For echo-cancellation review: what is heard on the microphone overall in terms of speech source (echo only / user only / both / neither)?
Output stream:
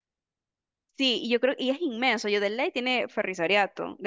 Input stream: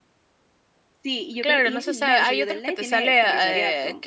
both